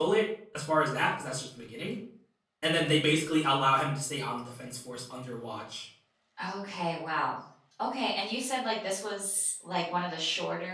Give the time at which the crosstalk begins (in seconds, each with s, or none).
none